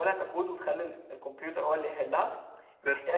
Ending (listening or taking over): listening